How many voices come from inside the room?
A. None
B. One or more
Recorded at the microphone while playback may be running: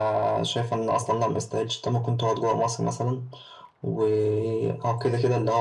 A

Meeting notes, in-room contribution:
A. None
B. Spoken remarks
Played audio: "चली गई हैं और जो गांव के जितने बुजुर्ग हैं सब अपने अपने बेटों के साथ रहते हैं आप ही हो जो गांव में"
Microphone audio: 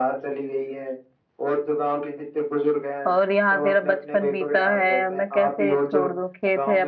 B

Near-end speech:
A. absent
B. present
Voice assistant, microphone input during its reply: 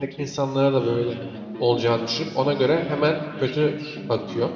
B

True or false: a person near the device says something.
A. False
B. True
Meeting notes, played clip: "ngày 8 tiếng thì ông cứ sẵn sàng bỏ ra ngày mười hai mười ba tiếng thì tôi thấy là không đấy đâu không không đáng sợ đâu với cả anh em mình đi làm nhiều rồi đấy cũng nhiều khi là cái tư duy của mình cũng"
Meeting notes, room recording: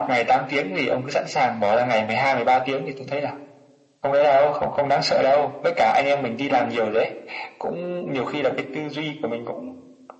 A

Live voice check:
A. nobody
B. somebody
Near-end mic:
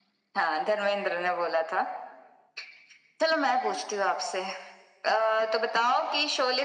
A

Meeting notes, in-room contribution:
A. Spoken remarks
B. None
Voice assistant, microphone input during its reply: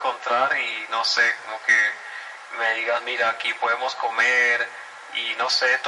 B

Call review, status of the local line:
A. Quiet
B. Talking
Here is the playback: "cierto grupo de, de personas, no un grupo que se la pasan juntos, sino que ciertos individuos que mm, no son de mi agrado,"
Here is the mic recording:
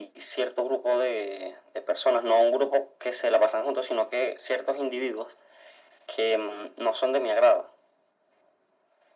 A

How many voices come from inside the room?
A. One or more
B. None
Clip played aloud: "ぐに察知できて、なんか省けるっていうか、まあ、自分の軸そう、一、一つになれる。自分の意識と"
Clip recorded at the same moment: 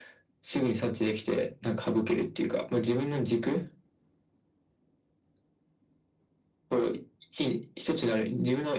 B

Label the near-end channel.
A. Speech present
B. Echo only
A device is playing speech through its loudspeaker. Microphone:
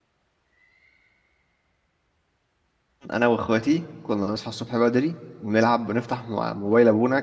A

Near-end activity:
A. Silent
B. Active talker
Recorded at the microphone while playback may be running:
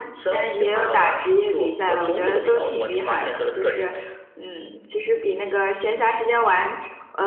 A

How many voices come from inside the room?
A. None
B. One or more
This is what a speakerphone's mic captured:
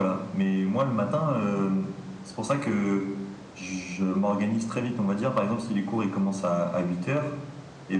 A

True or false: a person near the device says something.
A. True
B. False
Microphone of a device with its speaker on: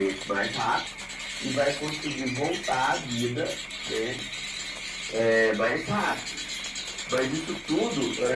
B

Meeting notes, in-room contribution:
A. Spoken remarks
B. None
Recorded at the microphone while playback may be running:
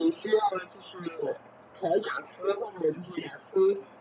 B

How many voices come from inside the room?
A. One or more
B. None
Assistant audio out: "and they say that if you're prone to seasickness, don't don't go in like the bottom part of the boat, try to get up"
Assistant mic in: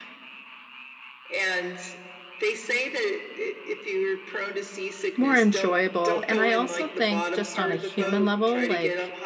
A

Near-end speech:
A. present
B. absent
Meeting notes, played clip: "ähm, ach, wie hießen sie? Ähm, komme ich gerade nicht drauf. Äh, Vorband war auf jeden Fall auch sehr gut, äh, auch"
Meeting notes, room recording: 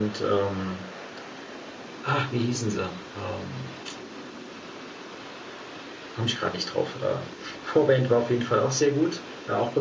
B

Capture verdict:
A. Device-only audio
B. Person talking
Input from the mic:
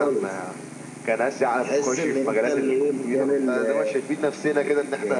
A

